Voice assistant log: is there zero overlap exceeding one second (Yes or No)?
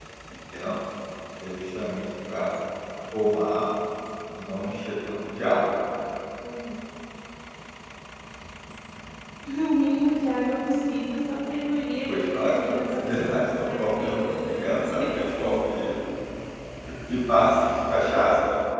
No